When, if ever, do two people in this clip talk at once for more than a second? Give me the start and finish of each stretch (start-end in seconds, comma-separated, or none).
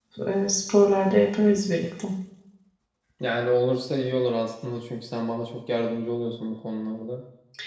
none